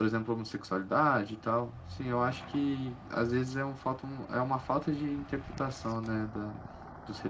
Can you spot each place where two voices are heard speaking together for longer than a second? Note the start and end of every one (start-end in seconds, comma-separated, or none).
none